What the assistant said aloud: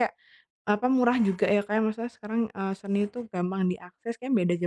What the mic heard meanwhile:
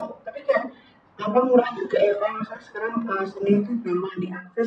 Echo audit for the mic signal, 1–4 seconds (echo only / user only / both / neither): echo only